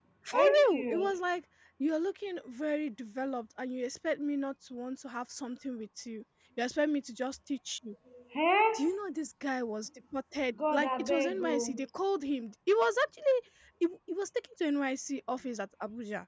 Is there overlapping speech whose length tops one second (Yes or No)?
Yes